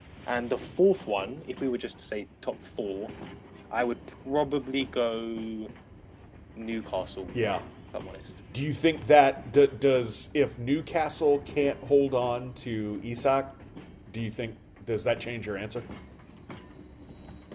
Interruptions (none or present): none